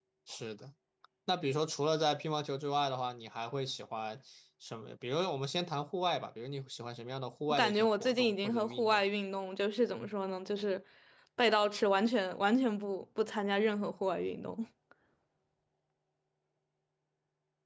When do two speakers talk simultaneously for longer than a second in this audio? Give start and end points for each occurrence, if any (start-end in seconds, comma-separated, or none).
7.5-9.0